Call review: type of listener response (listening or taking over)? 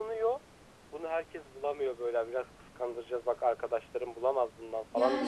taking over